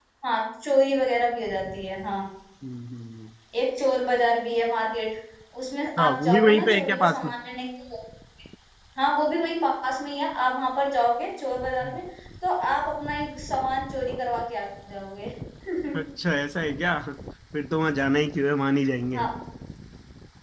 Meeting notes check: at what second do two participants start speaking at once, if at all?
6.0 s

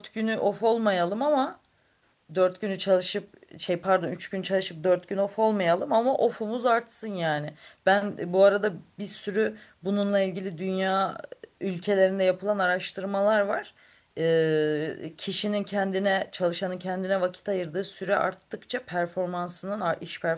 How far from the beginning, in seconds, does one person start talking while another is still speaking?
none

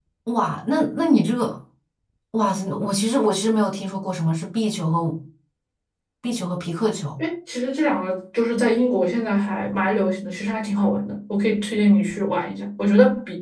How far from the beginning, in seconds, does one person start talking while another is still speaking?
none

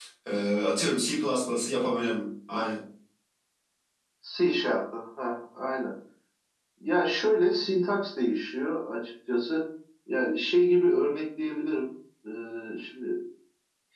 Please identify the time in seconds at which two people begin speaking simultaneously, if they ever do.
none

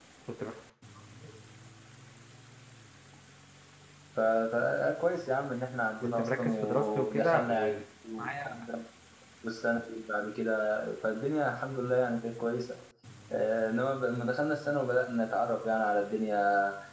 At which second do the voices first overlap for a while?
6.0 s

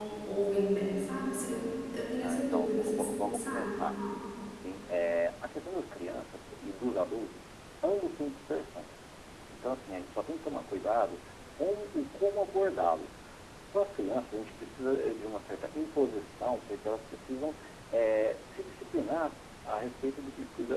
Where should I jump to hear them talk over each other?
2.2 s

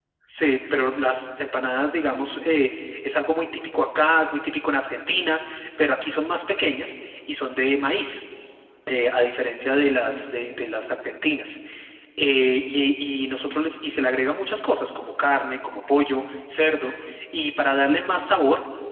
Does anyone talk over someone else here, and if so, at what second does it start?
none

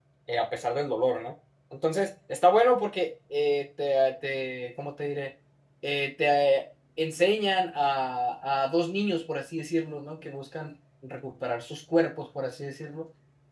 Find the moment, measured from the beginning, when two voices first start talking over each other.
none

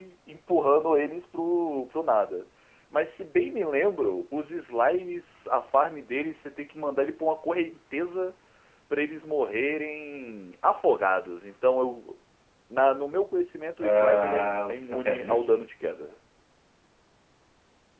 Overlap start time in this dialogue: 13.8 s

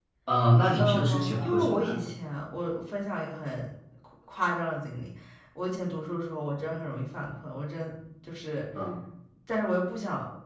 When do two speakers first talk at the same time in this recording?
0.8 s

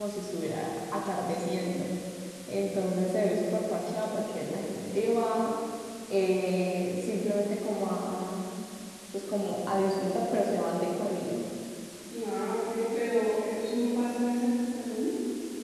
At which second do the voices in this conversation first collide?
none

